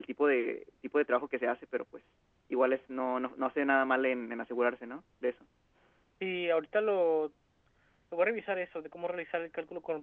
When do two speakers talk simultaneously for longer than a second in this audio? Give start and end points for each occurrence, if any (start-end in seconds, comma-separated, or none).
none